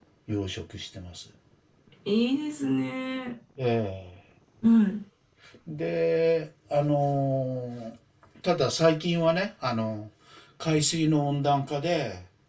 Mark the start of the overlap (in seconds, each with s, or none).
none